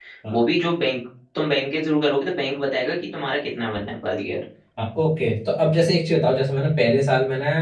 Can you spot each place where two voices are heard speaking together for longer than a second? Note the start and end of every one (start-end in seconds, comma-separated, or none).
none